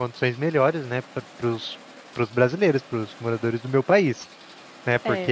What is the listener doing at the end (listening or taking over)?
taking over